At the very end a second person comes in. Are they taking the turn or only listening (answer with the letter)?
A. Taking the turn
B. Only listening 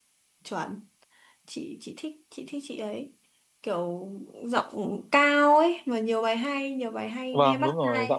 A